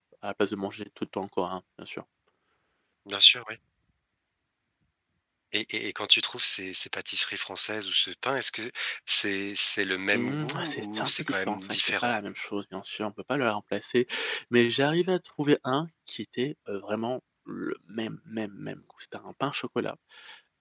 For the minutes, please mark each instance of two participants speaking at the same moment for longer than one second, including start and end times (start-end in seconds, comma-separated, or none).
10.1-12.1